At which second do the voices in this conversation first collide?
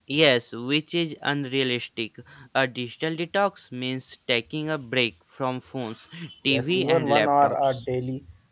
6.2 s

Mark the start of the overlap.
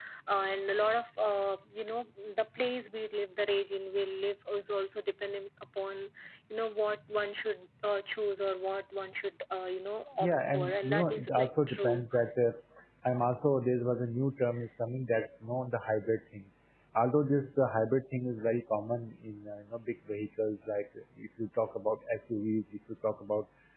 10.2 s

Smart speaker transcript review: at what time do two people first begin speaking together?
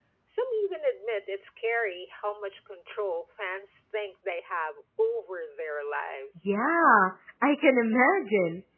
none

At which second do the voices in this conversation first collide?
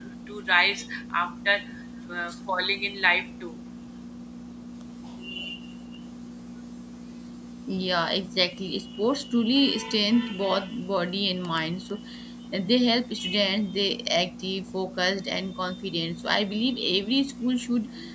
none

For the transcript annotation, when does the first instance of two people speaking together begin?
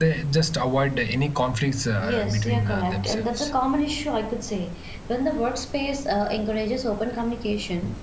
2.0 s

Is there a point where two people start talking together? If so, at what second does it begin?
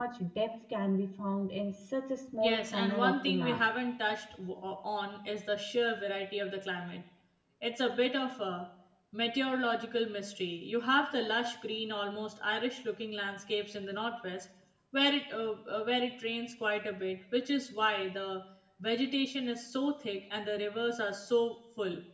2.4 s

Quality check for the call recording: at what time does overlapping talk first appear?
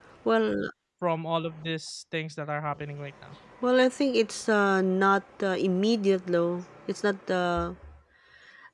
none

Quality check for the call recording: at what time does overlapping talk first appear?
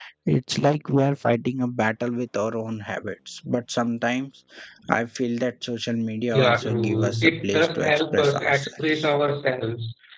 6.3 s

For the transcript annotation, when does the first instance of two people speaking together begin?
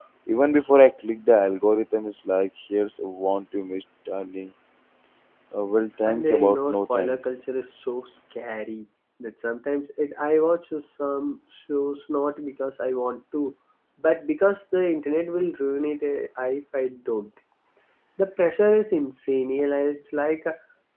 6.0 s

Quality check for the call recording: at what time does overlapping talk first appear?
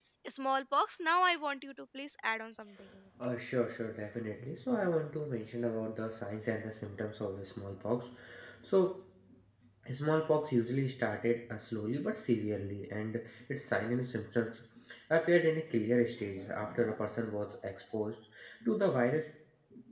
none

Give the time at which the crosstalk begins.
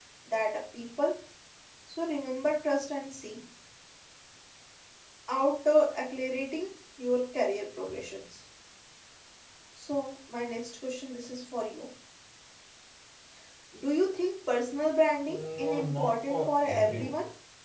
15.6 s

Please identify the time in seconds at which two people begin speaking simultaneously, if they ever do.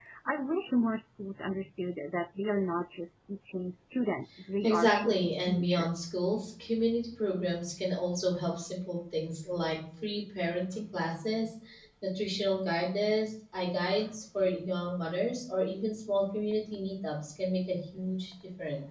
4.6 s

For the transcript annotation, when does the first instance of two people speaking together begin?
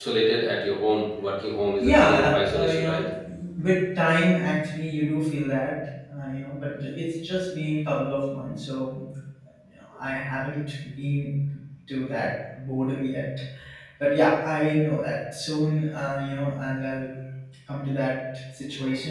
1.8 s

